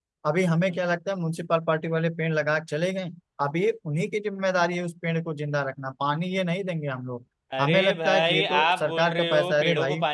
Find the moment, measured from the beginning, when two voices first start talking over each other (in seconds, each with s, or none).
7.5 s